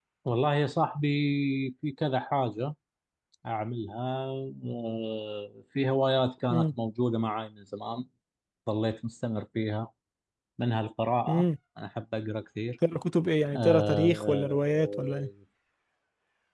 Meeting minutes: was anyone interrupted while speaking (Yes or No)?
Yes